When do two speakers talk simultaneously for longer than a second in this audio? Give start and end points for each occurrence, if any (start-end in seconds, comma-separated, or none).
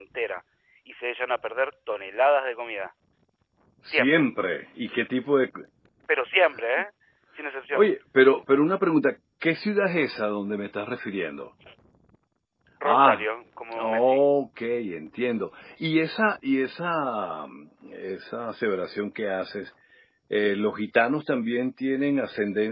none